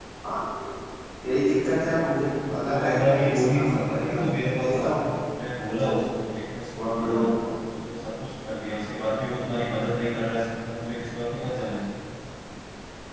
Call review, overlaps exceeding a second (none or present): present